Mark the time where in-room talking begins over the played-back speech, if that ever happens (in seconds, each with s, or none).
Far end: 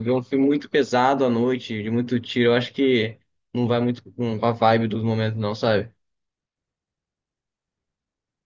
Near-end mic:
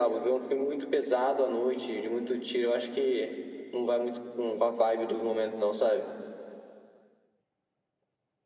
none